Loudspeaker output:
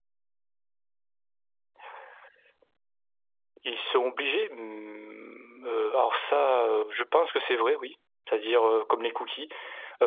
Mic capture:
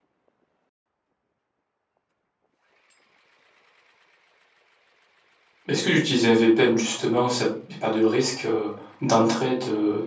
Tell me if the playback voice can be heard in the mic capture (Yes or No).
No